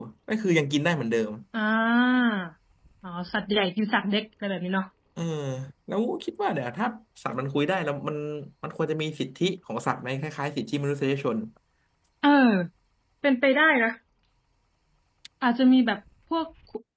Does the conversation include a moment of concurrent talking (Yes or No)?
No